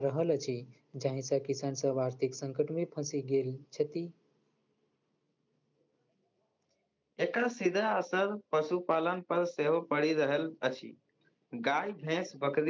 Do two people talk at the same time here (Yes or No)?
No